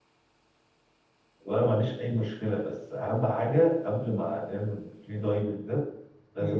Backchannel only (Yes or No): Yes